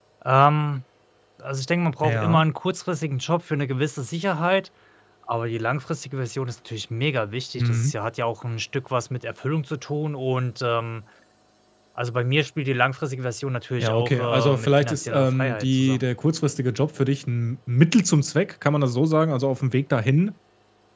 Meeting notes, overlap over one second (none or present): present